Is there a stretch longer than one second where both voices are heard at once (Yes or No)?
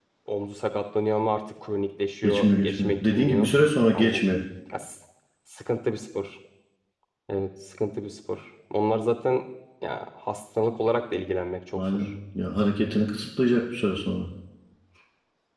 Yes